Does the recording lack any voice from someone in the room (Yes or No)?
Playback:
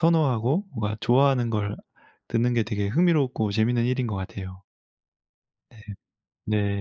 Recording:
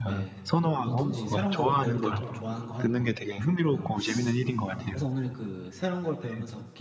No